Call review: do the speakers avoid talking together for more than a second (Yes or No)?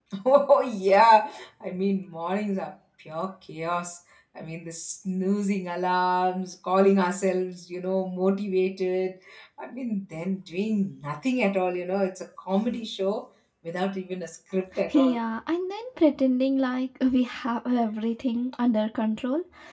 Yes